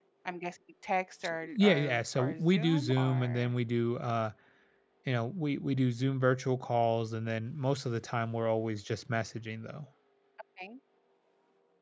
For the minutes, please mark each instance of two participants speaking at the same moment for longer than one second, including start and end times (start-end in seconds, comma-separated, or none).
1.2-3.5